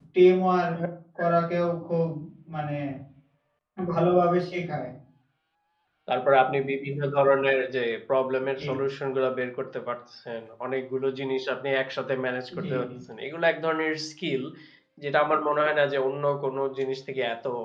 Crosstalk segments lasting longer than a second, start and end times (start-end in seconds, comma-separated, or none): none